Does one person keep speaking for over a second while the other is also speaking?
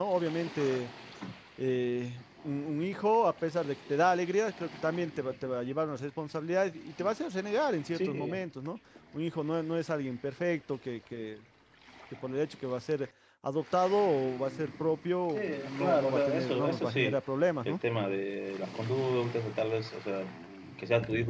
Yes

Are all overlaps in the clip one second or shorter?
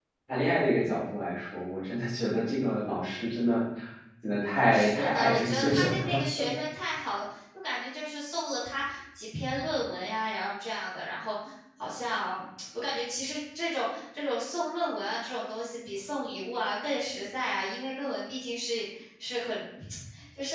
No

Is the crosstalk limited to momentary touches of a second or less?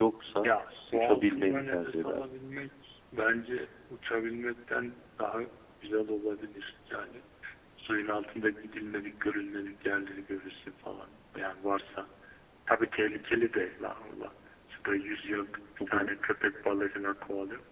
No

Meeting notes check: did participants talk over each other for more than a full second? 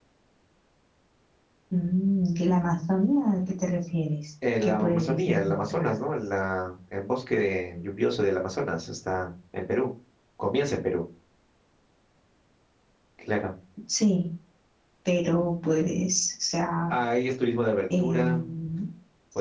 Yes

